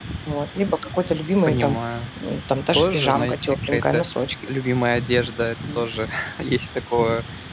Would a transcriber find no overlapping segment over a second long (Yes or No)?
No